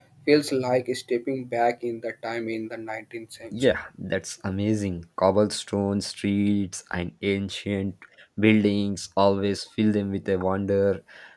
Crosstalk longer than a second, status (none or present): none